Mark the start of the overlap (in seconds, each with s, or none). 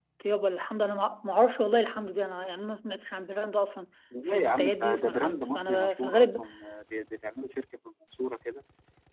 4.1 s